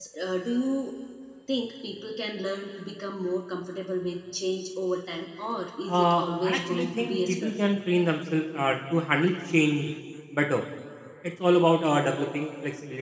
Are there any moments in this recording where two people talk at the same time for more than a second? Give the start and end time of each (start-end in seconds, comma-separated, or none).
6.0-7.7